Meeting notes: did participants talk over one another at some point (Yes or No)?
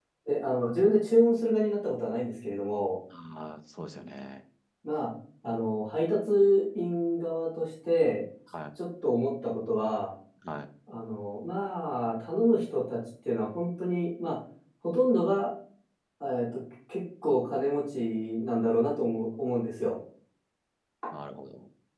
No